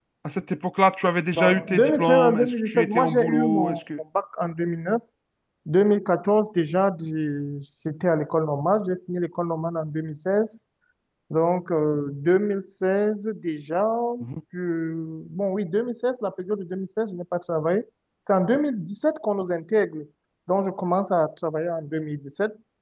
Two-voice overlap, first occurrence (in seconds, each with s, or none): 1.3 s